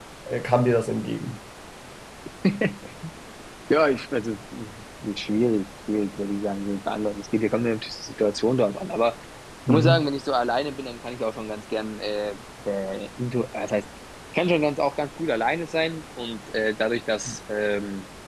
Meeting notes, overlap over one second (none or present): none